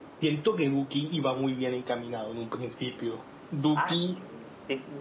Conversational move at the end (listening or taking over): taking over